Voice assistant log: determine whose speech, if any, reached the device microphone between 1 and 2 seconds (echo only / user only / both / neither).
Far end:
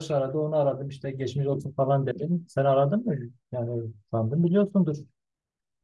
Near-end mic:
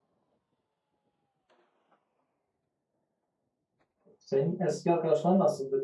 neither